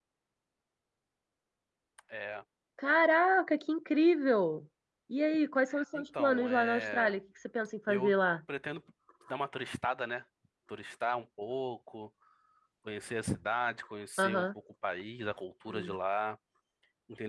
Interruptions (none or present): present